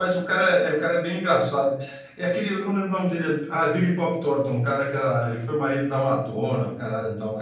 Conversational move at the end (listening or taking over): taking over